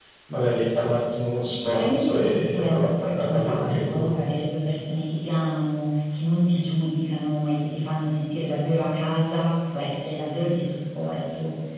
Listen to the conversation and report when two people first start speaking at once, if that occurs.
1 s

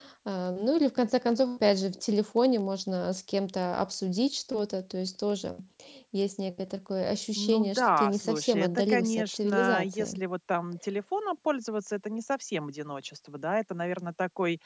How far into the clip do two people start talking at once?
7 s

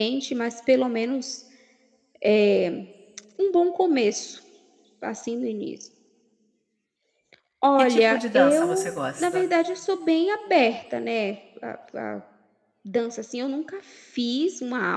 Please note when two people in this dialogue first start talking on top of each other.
8 s

